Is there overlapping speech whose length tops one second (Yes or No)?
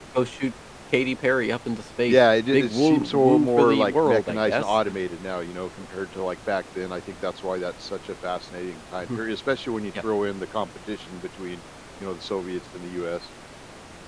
Yes